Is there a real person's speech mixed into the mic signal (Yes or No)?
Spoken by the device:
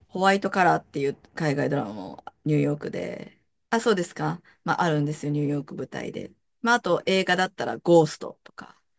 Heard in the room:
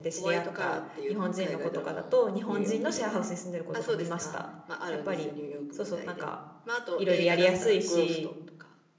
Yes